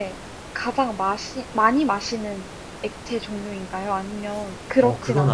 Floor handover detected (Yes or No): Yes